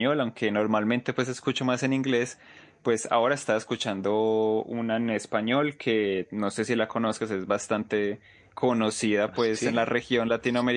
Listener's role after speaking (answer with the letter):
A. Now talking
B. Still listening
B